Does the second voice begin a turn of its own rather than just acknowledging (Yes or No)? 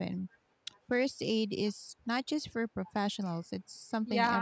Yes